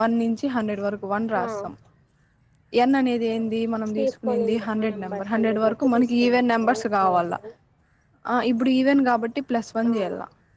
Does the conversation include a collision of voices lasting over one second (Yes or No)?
Yes